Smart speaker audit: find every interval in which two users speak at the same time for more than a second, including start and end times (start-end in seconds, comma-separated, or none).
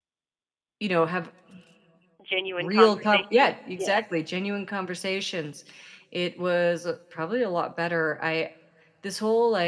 2.6-4.0